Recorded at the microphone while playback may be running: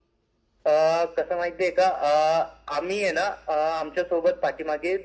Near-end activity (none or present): none